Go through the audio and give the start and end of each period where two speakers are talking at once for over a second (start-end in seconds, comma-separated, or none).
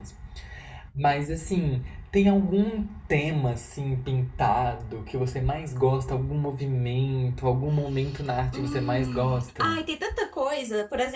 8.5-9.8